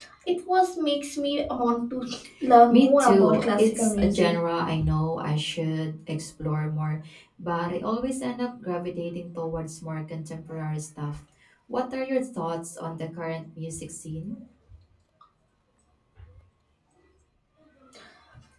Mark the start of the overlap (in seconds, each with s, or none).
2.7 s